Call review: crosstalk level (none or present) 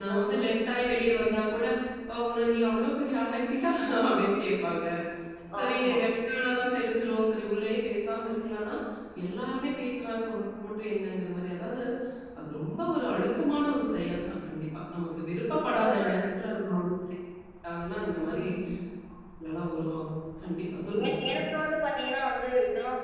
present